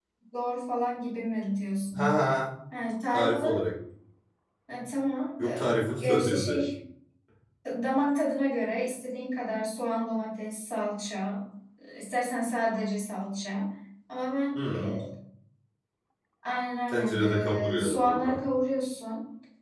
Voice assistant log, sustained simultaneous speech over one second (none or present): present